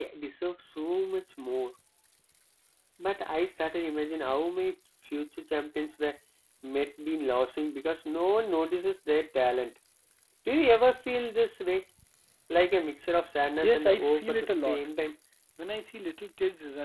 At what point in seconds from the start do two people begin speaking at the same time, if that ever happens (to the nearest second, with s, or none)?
14 s